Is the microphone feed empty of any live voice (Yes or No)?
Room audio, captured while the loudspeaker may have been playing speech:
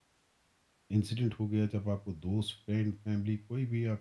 No